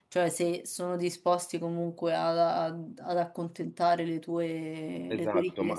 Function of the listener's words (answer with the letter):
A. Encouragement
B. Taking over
B